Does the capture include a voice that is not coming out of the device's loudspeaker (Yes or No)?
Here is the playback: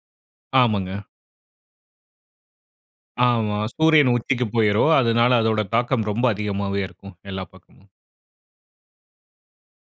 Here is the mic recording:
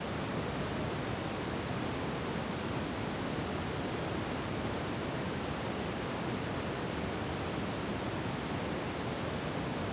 No